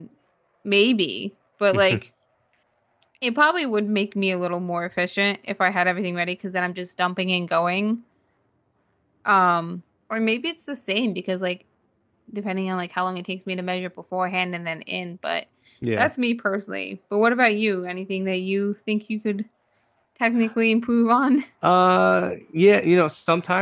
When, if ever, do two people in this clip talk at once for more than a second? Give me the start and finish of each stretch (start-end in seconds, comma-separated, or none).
none